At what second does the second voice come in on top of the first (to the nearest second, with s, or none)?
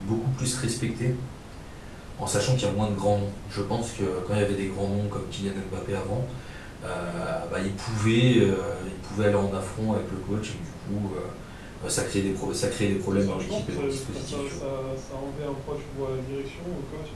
13 s